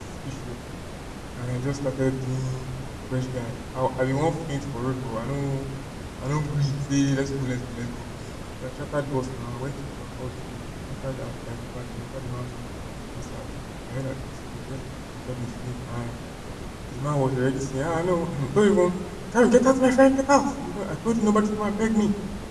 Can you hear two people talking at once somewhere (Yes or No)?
No